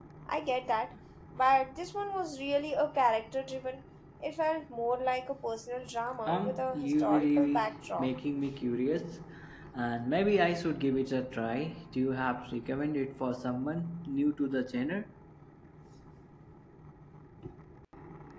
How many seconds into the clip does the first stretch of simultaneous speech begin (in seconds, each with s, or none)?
6.3 s